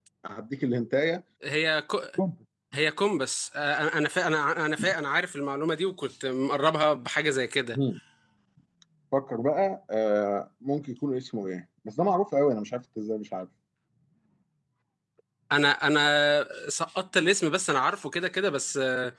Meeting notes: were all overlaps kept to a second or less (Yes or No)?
Yes